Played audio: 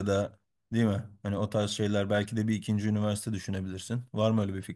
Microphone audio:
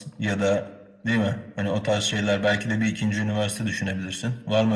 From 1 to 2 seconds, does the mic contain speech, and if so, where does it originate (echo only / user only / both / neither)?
echo only